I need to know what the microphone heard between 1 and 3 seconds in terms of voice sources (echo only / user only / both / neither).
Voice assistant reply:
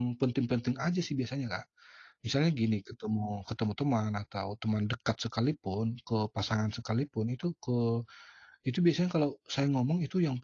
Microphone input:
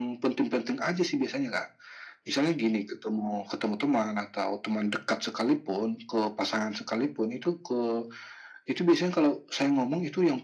echo only